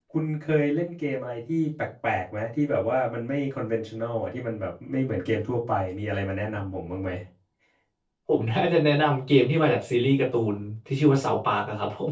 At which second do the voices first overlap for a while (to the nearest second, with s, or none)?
none